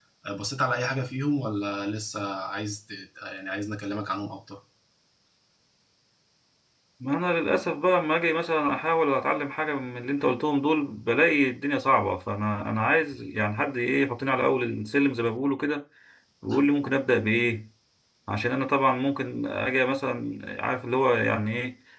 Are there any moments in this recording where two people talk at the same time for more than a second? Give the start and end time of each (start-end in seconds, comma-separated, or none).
none